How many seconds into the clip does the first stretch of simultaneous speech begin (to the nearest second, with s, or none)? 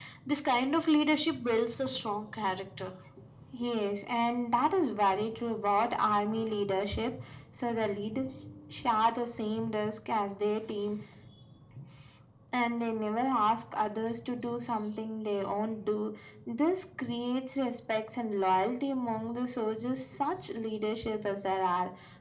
none